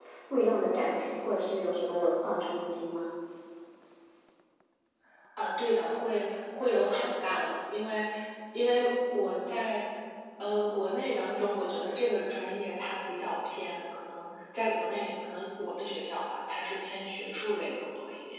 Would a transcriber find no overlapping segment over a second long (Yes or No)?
Yes